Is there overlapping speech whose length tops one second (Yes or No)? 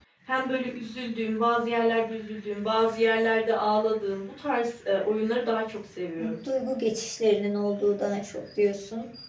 No